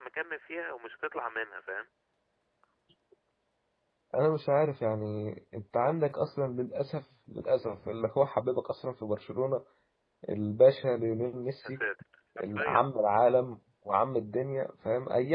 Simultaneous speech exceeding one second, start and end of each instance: none

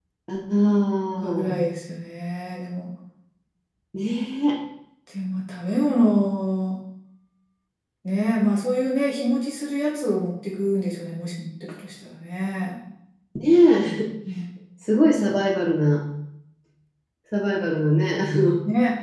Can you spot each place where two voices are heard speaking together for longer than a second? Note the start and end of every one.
none

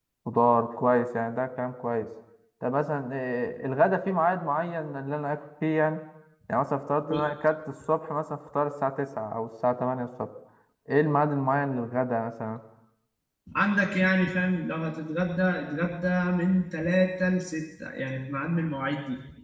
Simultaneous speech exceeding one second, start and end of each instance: none

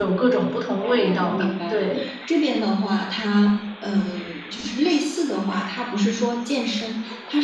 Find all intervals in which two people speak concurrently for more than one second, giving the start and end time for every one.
0.8-2.0

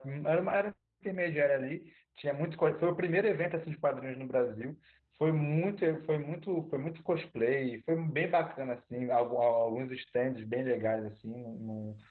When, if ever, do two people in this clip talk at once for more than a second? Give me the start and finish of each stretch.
none

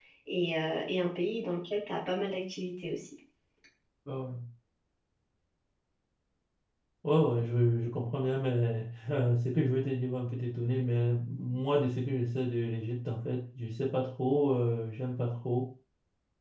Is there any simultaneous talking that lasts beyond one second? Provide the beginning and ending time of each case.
none

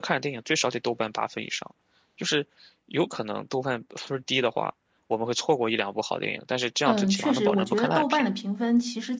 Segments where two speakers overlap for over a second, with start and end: 6.8-8.3

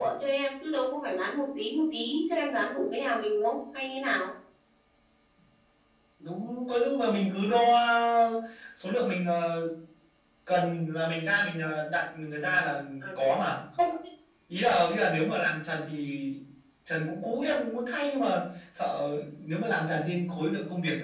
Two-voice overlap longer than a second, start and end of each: none

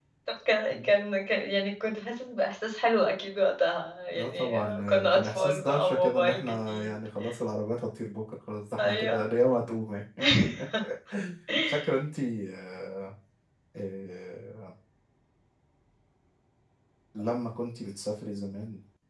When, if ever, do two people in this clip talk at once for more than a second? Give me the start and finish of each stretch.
4.1-6.9

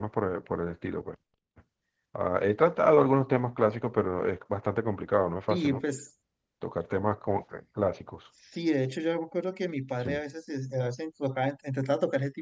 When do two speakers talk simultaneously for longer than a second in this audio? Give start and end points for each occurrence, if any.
none

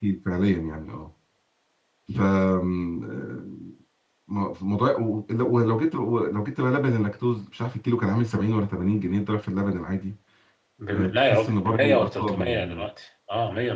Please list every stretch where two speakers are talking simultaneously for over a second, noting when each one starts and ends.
10.9-12.9

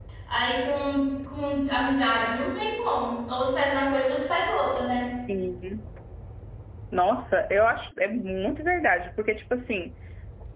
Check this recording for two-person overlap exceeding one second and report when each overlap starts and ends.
none

